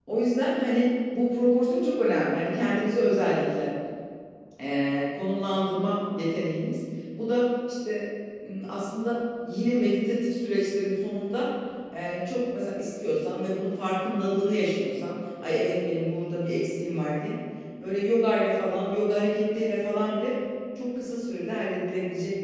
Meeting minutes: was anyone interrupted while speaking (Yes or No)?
No